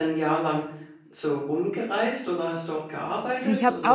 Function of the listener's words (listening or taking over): taking over